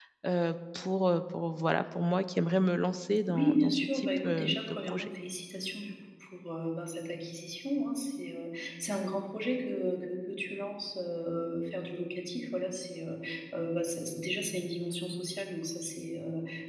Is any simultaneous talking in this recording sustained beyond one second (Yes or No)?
Yes